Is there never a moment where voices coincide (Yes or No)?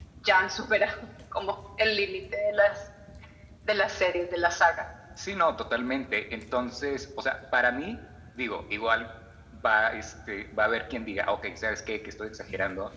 Yes